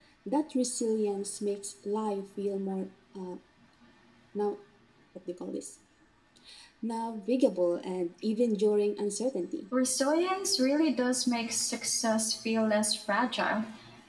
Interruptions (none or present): none